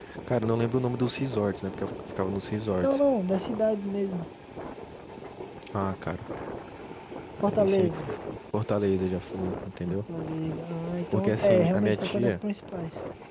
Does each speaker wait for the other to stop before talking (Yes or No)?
No